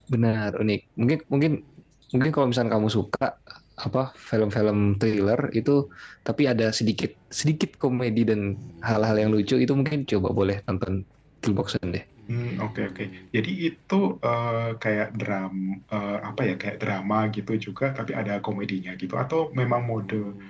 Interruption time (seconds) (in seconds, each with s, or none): none